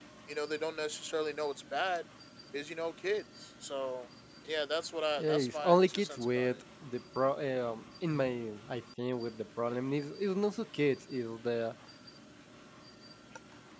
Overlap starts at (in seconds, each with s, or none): 5.2 s